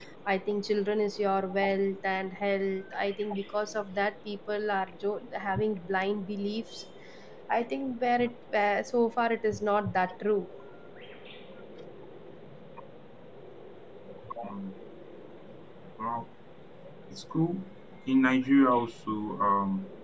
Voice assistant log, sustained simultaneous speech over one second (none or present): none